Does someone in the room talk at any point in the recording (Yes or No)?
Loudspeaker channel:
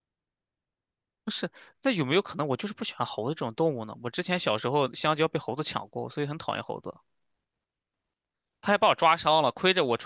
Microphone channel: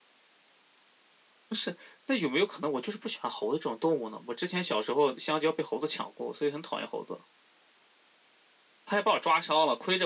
No